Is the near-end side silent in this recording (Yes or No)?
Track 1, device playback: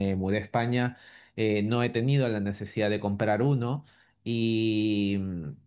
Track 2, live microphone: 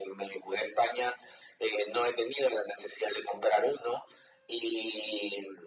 Yes